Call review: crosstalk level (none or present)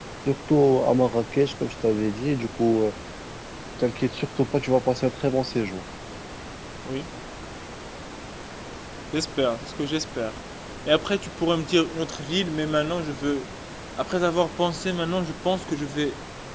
none